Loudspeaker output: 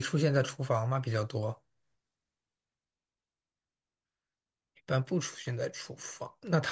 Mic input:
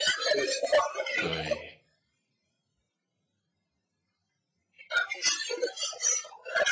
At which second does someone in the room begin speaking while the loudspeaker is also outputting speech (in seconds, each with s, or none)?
1.1 s